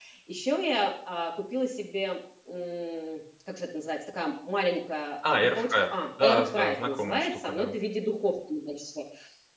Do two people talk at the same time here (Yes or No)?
Yes